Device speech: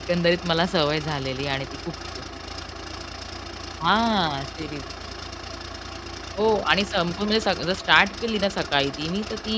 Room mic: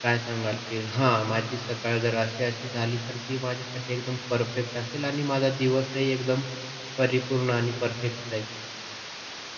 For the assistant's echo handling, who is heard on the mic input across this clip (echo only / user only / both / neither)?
user only